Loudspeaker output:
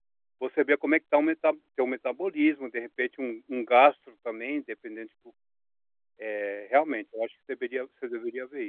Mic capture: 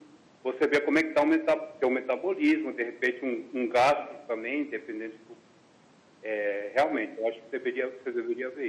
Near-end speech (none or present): none